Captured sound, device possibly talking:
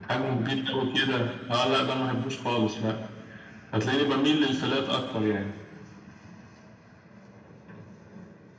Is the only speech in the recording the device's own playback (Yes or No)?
Yes